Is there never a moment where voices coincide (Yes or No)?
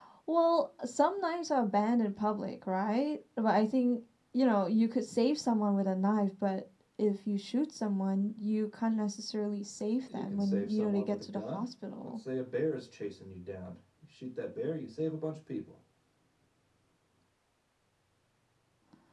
No